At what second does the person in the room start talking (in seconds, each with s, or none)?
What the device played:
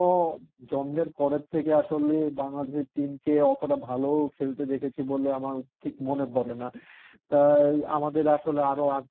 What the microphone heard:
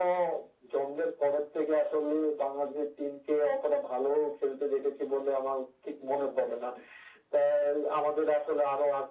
none